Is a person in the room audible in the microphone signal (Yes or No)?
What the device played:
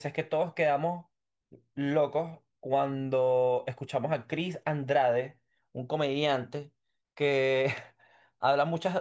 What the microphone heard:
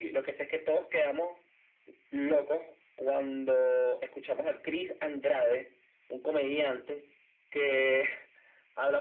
No